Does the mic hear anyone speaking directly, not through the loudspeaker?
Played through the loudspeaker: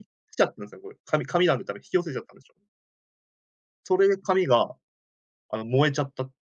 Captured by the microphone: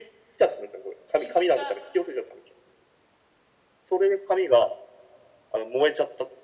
Yes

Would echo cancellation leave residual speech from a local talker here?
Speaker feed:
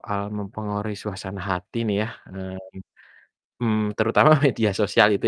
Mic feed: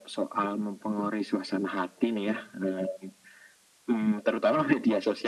No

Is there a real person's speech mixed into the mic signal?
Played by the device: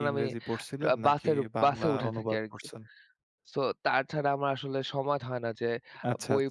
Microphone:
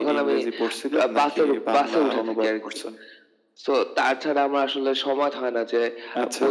No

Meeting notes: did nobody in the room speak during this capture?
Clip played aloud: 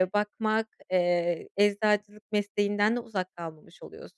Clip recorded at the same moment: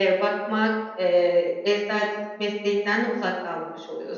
Yes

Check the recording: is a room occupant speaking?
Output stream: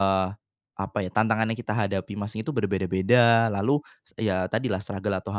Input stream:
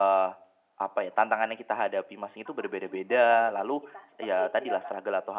Yes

